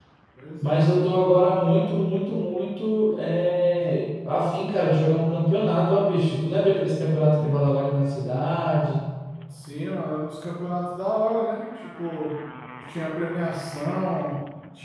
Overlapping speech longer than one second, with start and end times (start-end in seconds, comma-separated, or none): none